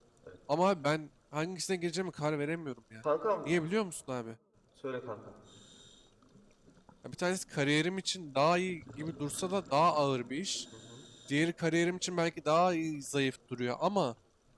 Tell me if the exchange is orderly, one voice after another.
Yes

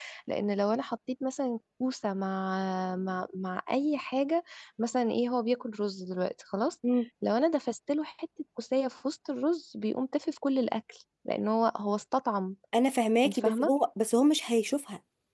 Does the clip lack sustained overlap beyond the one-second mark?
Yes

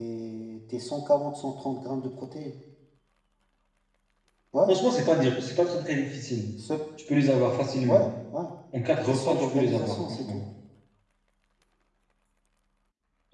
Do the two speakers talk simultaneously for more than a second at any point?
Yes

